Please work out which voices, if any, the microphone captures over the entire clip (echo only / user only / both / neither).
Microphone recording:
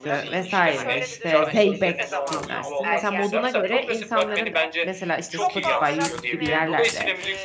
both